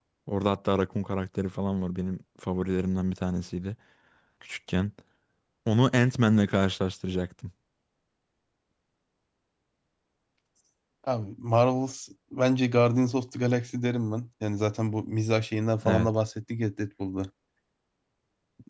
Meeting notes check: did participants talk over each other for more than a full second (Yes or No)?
No